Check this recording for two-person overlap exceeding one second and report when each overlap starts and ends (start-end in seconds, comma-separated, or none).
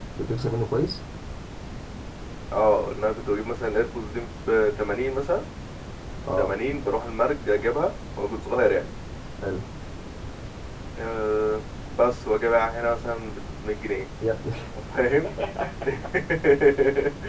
none